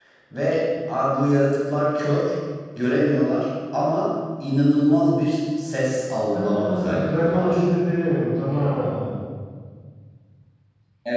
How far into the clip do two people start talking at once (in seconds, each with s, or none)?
6.3 s